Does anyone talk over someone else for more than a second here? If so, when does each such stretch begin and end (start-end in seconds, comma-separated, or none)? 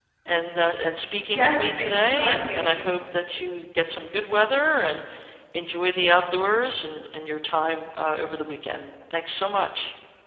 1.3-2.8